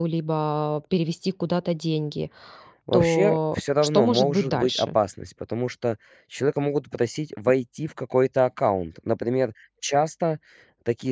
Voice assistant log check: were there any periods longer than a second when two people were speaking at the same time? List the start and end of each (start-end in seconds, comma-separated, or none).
2.9-5.0